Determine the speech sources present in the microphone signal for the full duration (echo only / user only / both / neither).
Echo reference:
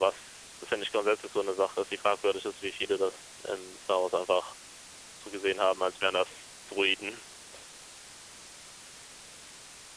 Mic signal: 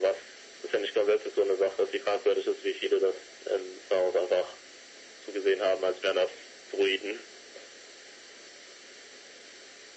echo only